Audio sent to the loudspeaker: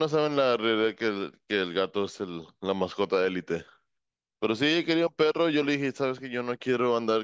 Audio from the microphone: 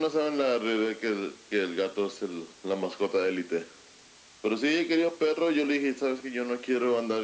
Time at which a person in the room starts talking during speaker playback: none

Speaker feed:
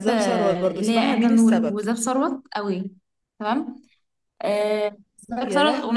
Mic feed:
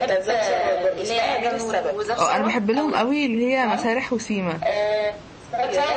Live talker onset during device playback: 2.2 s

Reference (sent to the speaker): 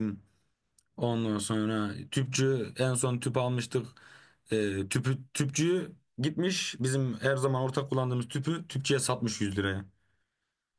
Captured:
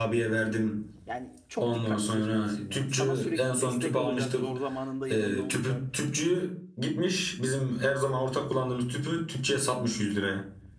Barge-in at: 1.1 s

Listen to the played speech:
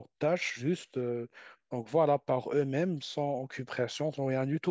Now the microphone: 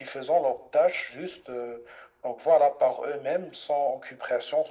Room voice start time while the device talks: none

